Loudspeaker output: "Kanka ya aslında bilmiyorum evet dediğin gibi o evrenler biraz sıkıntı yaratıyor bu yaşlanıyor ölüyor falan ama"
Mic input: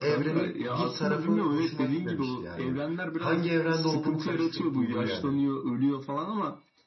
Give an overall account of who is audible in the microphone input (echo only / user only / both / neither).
both